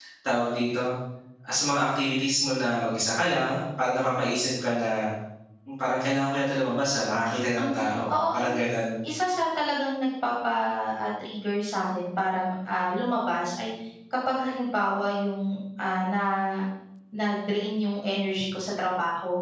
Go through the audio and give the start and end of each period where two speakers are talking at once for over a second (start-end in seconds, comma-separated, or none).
none